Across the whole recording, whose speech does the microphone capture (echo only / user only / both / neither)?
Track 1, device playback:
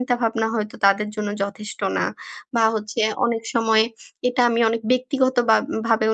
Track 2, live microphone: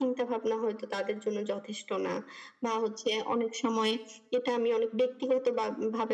echo only